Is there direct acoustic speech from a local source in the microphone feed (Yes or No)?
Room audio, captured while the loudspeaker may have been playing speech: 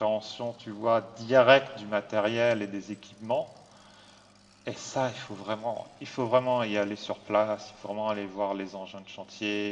Yes